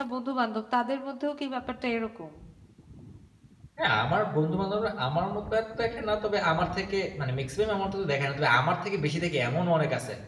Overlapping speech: No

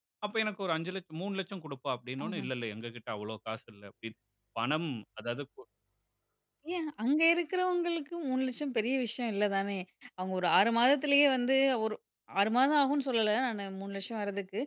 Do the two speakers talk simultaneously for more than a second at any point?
No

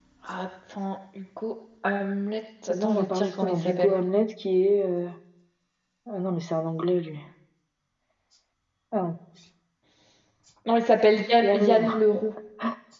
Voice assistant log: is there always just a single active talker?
No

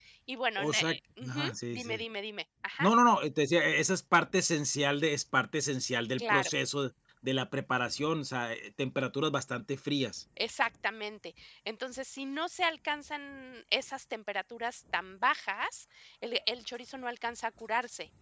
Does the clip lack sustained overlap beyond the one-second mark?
No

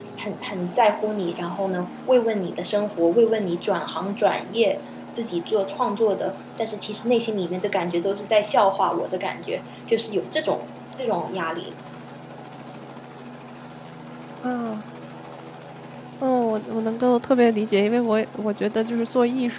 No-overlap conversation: Yes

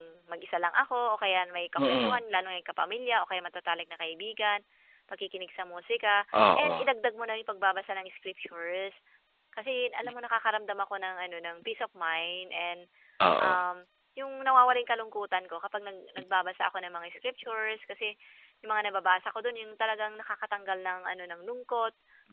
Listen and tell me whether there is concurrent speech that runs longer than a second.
No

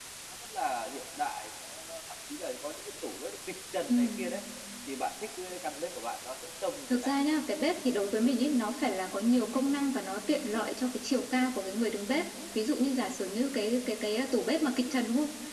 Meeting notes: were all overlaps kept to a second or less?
Yes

